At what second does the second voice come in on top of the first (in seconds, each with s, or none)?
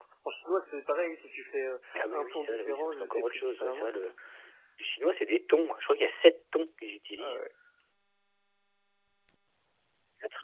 1.9 s